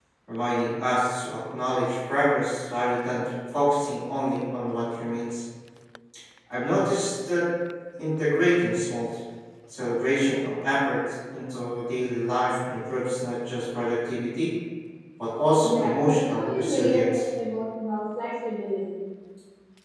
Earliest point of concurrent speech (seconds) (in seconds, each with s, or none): 15.6 s